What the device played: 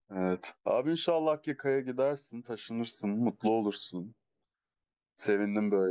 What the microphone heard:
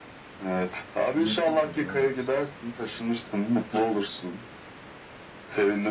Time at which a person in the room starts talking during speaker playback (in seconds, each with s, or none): 1.1 s